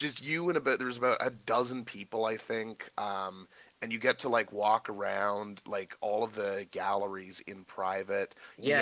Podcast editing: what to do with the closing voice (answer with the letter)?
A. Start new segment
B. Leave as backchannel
A